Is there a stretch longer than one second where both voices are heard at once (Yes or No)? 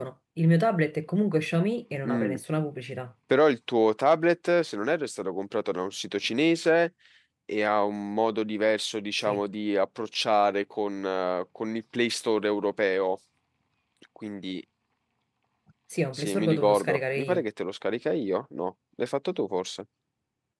Yes